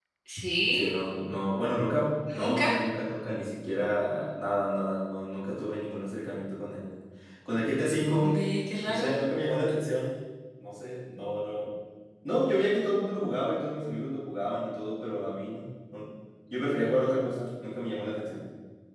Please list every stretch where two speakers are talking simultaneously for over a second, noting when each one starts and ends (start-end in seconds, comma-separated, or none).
none